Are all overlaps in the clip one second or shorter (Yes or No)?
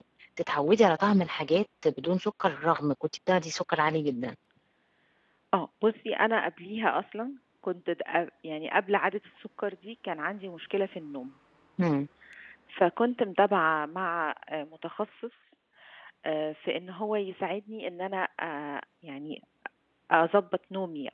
Yes